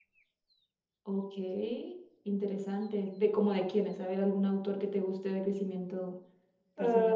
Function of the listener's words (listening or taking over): taking over